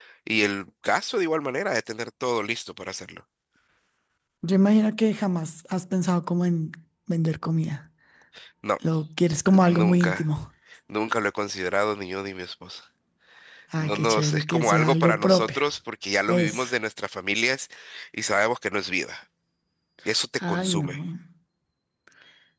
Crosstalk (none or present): present